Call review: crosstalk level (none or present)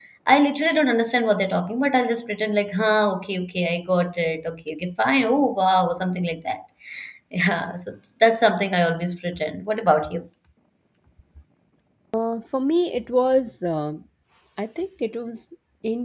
none